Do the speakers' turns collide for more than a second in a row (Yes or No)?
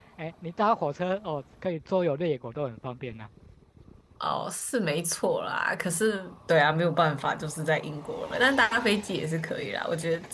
No